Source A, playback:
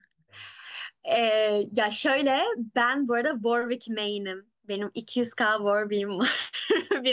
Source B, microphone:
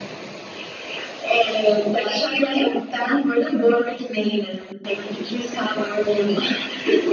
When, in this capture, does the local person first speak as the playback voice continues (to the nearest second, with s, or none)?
none